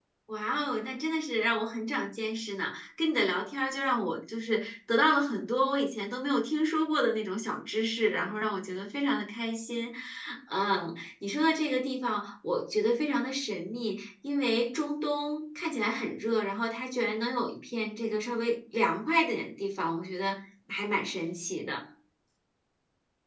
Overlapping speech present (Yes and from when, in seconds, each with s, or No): No